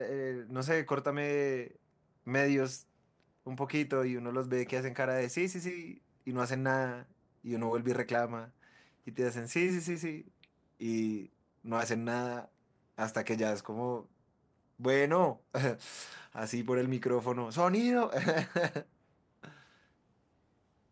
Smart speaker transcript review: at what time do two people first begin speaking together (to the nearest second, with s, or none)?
none